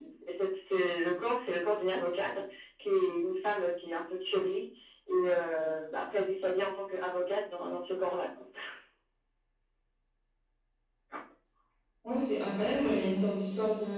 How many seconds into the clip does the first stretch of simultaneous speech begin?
none

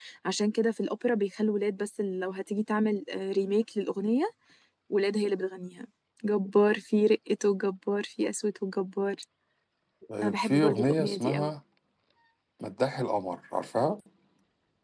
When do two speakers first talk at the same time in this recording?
10.2 s

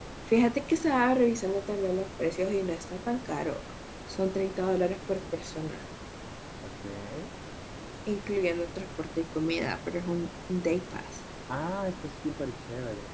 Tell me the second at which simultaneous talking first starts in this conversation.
none

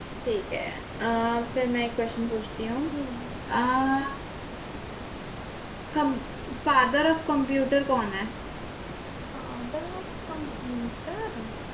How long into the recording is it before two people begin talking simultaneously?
none

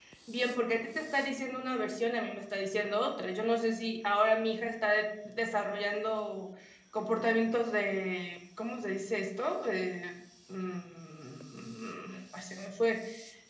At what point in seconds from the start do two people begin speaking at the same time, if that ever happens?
none

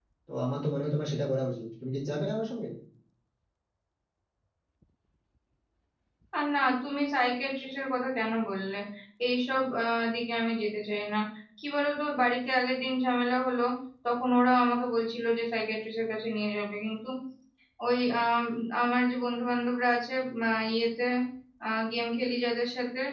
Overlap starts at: none

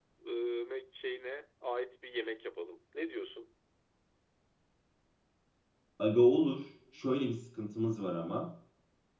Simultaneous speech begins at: none

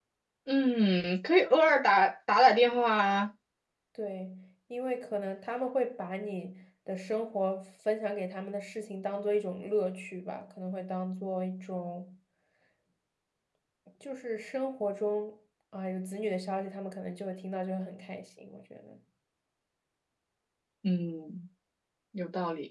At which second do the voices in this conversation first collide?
none

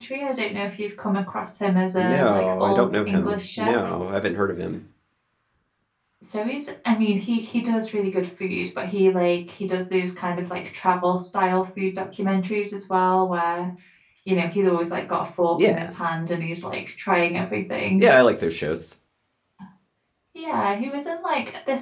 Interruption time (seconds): 2.0 s

